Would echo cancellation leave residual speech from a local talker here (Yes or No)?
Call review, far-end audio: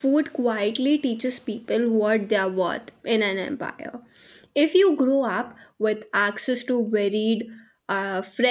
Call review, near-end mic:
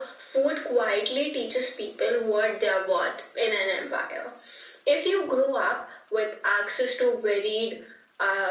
No